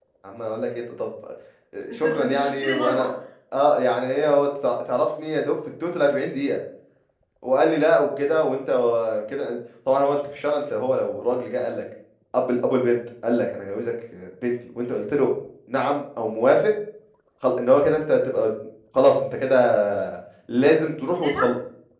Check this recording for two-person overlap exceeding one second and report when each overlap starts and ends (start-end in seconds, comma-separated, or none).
1.9-3.1